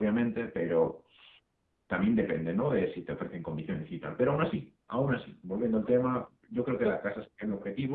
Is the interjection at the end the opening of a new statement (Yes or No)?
No